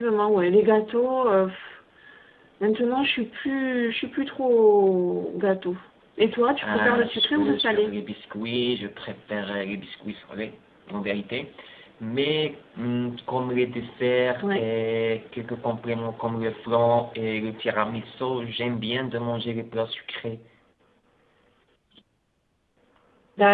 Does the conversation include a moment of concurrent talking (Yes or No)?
Yes